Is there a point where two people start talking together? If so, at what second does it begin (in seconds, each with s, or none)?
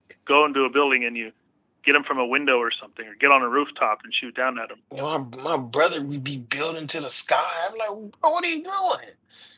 none